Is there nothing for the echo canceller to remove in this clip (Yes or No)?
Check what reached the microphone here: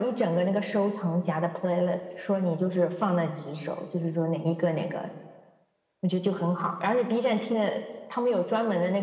No